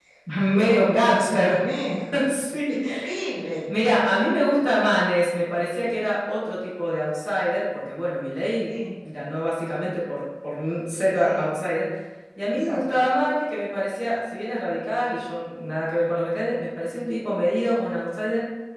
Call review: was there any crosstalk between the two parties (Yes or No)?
Yes